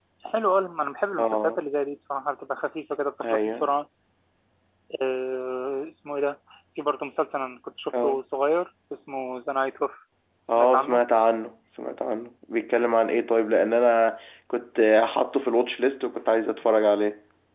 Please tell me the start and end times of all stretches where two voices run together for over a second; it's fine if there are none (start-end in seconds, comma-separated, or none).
none